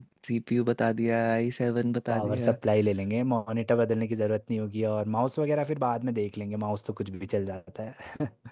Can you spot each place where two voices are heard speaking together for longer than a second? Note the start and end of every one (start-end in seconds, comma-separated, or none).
none